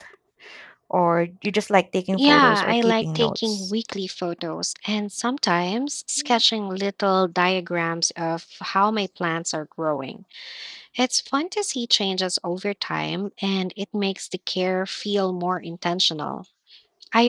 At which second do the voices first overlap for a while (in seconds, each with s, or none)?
2.1 s